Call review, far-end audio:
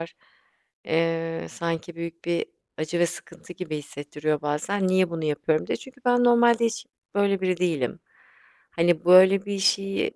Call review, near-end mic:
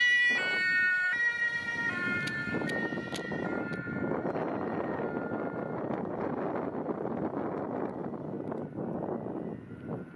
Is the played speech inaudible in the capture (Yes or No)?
Yes